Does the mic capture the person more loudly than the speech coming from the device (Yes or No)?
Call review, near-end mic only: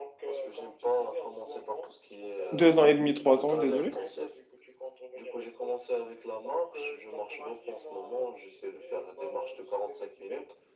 Yes